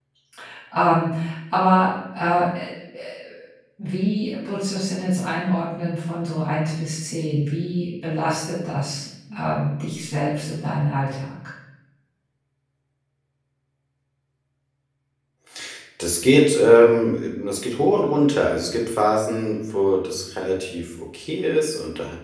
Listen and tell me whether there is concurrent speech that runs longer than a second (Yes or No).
No